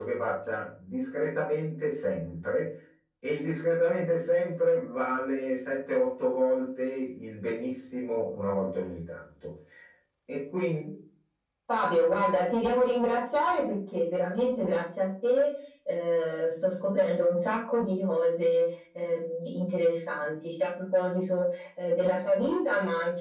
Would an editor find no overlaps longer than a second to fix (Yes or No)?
Yes